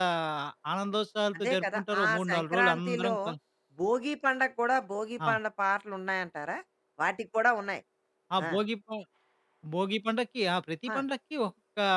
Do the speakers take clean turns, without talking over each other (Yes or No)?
No